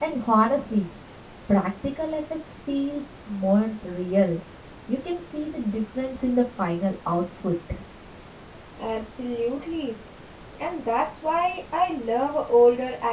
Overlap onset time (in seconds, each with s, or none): none